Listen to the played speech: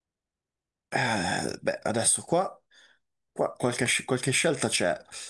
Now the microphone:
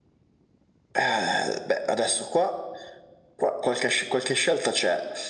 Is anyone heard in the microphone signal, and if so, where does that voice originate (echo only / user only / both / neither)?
echo only